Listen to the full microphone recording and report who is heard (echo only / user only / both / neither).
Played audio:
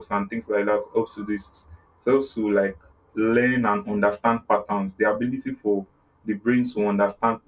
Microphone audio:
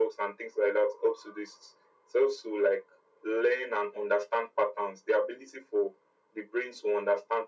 echo only